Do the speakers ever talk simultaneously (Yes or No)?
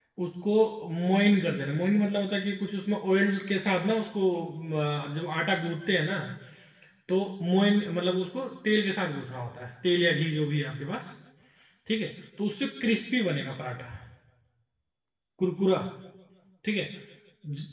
No